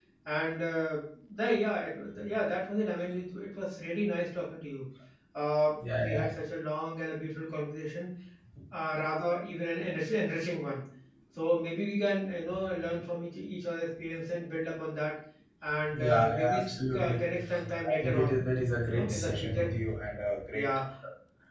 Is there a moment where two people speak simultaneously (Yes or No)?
Yes